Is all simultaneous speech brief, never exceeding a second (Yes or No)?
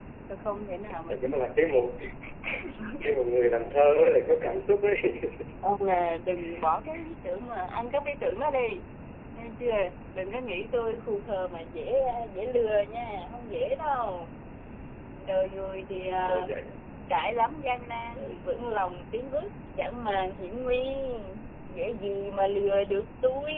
Yes